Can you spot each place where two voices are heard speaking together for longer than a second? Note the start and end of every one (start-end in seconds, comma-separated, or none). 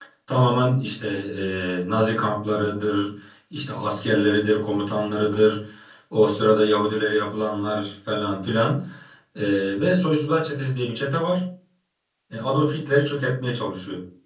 none